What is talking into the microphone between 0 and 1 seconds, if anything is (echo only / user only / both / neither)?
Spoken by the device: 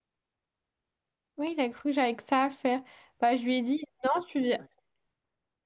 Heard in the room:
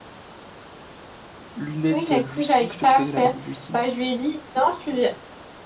neither